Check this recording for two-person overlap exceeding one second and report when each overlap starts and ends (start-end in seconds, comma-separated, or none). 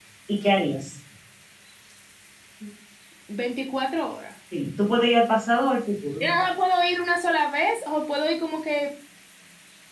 none